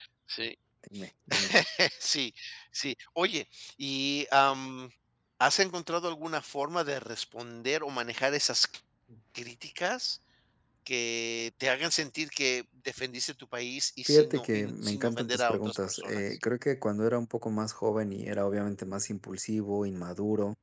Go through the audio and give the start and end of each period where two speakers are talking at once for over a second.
14.1-16.4

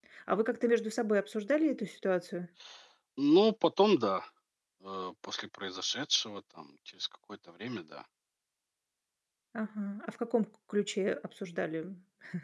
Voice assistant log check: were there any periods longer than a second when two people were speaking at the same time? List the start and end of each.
none

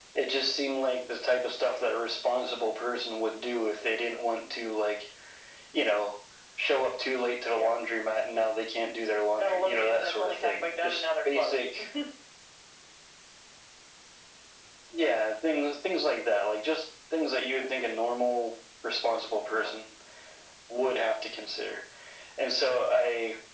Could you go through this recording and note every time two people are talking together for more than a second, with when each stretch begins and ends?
9.3-11.7

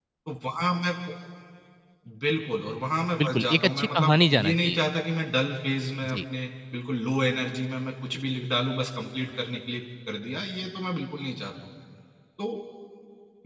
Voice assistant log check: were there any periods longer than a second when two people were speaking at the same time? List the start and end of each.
3.2-4.8

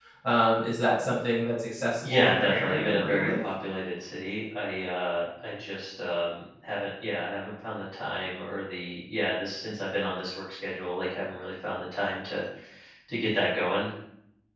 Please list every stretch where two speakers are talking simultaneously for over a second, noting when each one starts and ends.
2.0-3.4

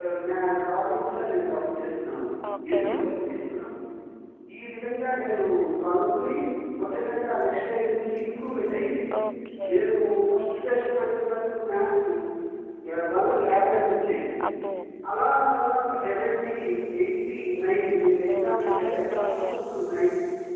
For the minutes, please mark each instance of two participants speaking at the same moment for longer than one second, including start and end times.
18.1-19.6

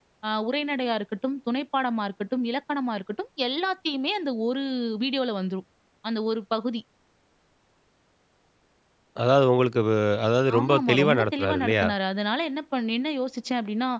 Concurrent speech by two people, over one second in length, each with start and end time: 10.6-11.9

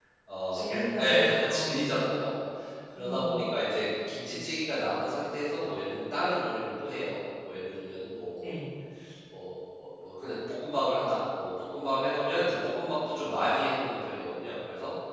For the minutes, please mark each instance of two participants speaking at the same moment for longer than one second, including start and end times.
0.5-2.1

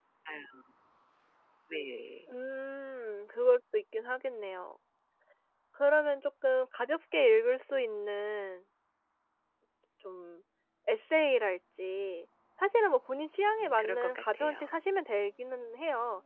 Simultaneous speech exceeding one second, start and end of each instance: 13.6-14.8

